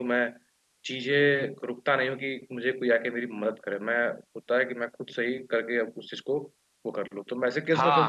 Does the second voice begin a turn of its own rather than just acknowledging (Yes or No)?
Yes